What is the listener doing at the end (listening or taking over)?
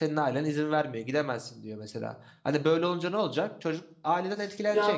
taking over